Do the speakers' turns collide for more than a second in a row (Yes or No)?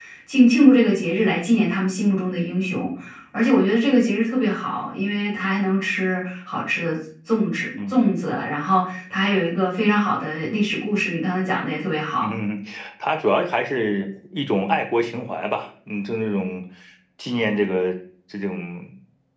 No